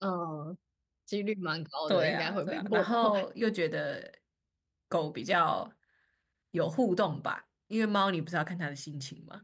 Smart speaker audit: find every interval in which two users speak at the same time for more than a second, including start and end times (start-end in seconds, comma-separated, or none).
1.9-3.2